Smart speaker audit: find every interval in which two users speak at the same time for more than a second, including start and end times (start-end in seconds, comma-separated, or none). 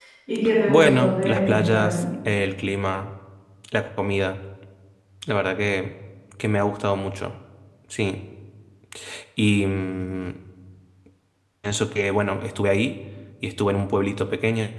0.7-2.0